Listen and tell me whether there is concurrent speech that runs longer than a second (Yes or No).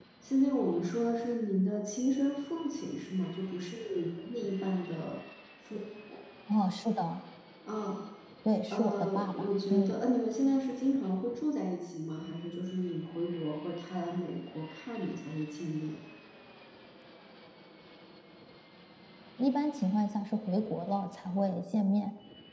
Yes